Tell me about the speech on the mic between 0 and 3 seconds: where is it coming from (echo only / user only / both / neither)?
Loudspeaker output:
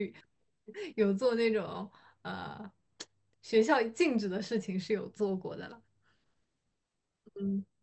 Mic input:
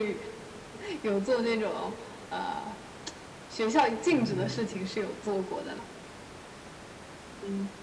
echo only